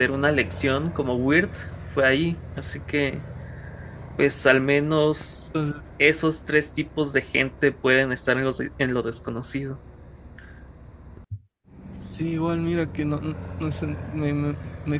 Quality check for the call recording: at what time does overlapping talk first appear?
none

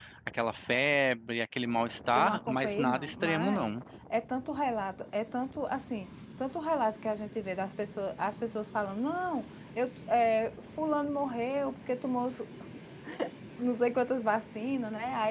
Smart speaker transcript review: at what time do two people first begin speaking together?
2.1 s

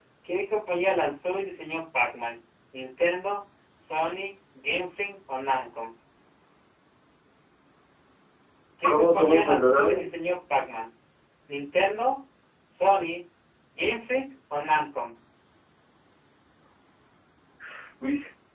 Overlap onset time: 8.8 s

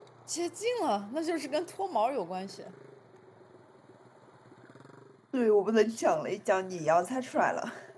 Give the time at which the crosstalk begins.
none

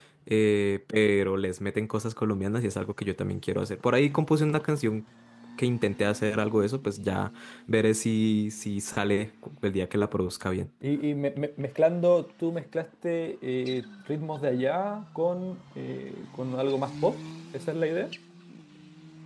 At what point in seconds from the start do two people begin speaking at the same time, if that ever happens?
none

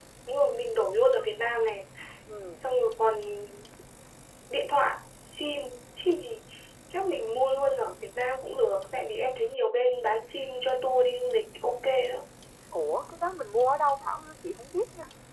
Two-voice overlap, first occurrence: none

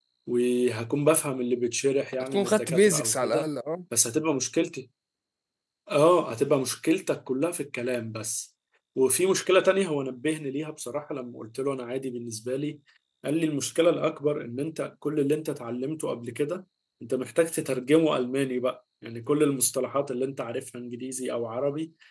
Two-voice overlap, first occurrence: 2.1 s

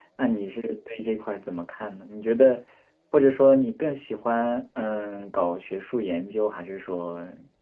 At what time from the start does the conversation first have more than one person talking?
none

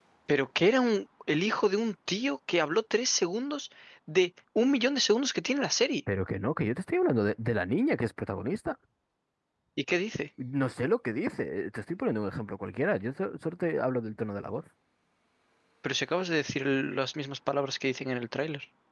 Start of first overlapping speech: none

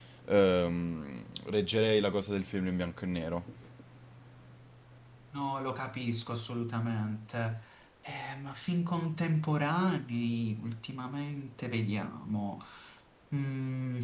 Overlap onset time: none

